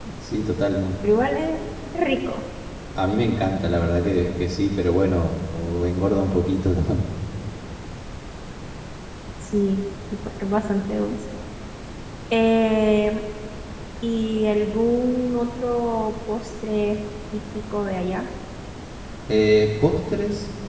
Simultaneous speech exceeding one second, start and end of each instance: none

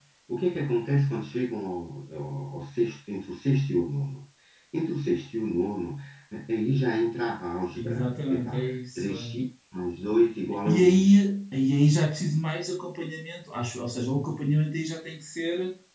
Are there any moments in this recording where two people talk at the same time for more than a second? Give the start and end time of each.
7.8-9.4

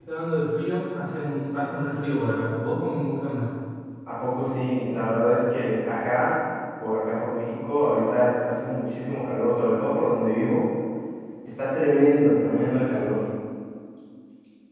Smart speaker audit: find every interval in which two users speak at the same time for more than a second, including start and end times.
none

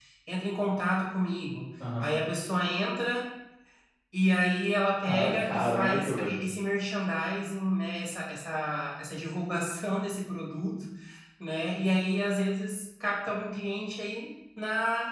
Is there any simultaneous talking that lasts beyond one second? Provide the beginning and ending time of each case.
5.0-6.4

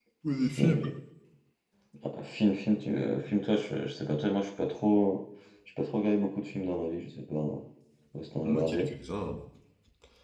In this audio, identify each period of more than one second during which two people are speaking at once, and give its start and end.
none

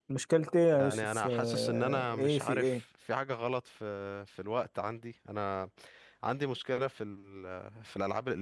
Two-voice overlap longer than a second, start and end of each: 0.7-2.8

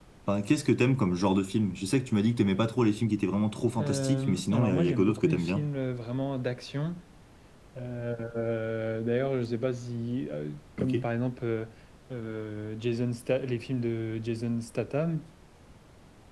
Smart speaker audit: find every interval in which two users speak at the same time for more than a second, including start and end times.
3.8-5.7

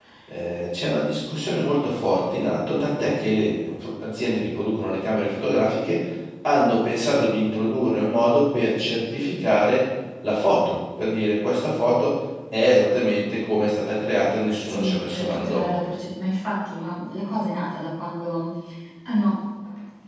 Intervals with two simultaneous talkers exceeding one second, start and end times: 14.5-15.8

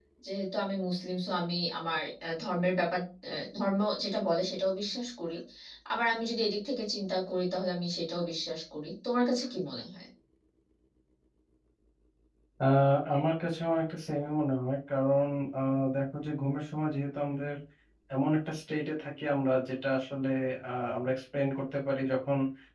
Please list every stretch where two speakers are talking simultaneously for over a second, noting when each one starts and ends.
none

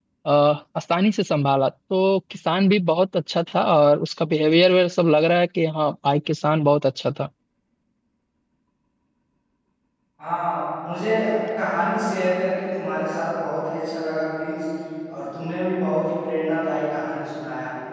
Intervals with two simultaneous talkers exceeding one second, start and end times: none

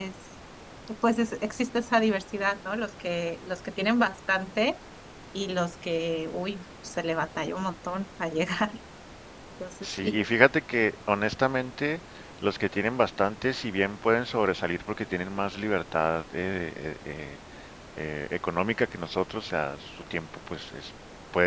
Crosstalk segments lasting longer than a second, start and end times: none

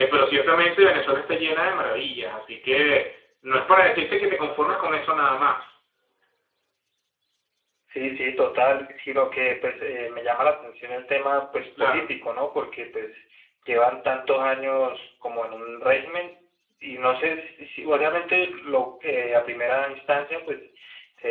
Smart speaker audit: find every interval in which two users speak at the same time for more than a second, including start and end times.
none

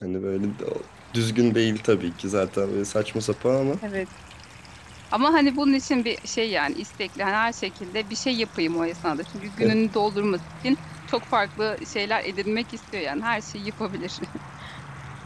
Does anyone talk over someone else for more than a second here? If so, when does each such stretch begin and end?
none

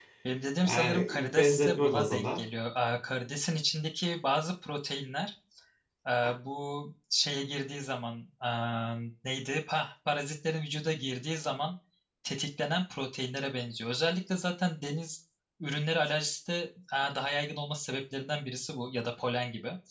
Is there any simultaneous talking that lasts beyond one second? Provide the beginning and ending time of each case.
0.6-2.4

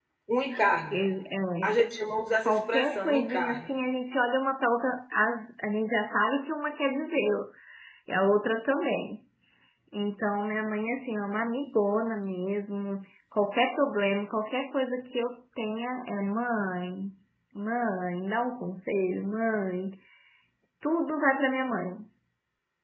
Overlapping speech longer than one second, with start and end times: 2.5-3.7

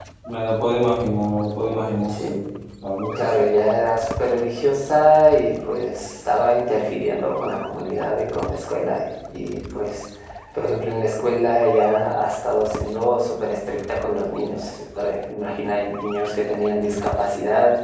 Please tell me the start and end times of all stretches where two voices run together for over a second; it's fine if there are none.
none

